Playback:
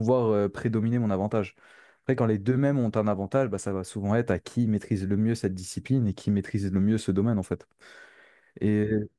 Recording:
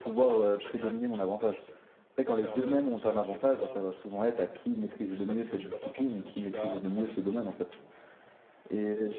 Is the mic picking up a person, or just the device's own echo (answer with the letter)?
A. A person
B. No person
A